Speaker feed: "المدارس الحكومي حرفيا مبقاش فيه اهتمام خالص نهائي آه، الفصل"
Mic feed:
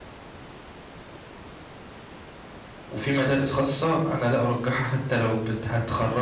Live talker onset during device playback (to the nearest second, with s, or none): 3 s